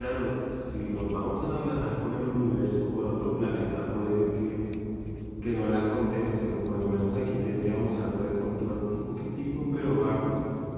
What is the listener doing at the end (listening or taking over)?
taking over